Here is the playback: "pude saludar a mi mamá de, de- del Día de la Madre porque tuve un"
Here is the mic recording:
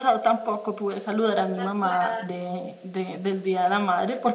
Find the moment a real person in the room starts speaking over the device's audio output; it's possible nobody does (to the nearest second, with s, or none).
2 s